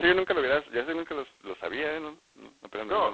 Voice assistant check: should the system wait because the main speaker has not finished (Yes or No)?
No